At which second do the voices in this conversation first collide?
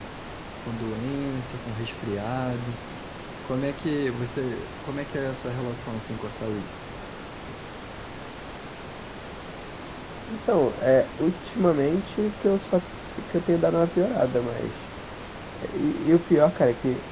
none

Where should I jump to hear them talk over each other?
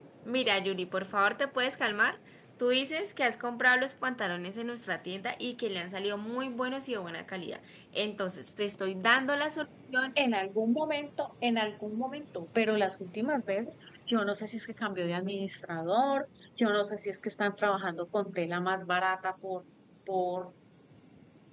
none

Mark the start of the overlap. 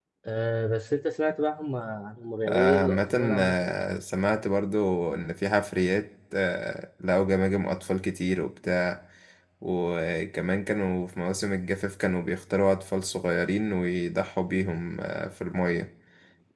2.5 s

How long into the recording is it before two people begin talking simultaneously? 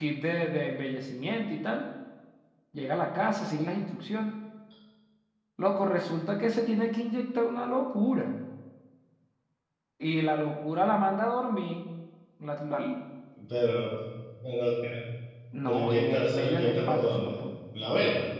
15.7 s

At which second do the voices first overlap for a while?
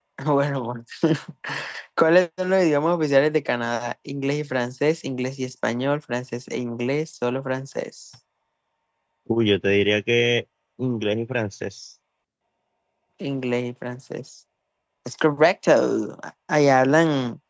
none

